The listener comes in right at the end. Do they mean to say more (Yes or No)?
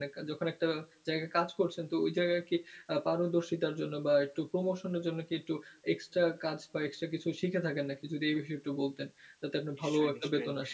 Yes